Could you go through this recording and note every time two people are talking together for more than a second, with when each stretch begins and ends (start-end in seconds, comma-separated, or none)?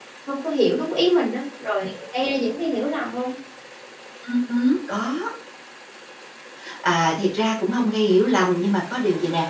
none